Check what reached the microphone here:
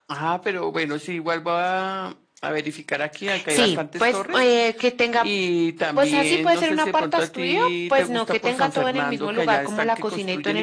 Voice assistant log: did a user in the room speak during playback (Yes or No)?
No